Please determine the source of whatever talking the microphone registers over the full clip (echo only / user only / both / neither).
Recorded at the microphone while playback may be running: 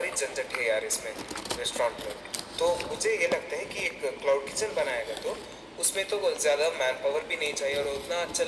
echo only